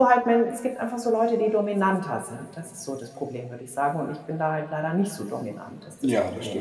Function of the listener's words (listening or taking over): taking over